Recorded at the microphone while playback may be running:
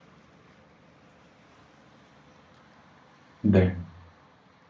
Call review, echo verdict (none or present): none